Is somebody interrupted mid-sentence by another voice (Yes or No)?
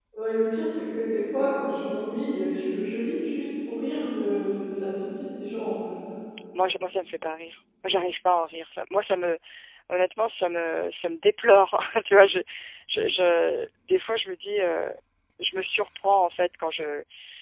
No